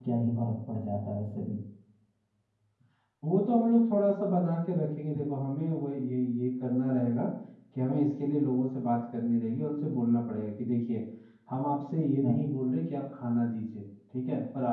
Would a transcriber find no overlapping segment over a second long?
Yes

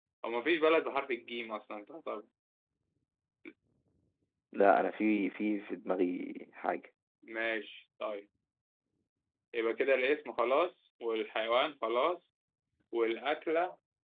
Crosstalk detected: No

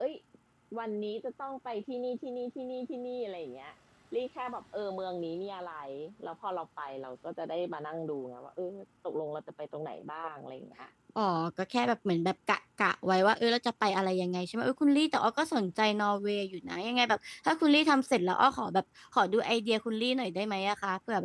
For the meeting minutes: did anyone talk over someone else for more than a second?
No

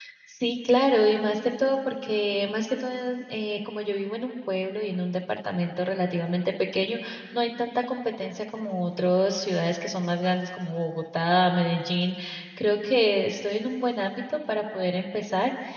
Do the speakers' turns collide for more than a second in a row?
No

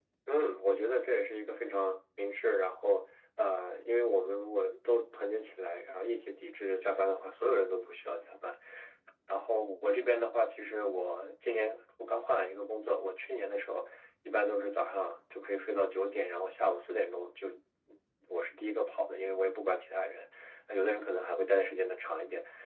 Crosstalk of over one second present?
No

